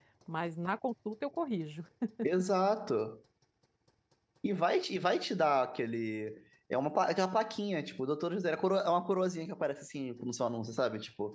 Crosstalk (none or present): none